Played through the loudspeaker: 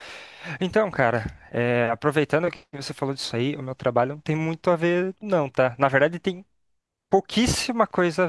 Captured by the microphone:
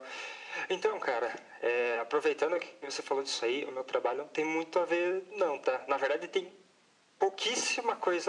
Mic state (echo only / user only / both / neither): echo only